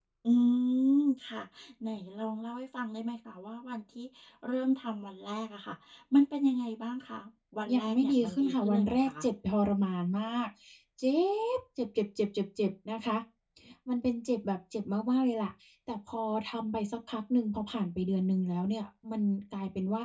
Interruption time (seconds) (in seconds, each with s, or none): 7.7 s